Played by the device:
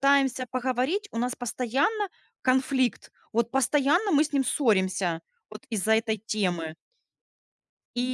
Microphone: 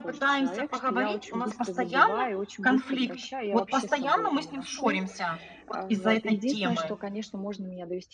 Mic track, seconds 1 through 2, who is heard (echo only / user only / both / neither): both